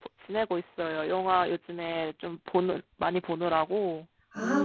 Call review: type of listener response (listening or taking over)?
taking over